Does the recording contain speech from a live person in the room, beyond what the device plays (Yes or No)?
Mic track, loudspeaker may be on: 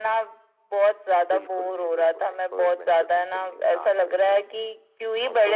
Yes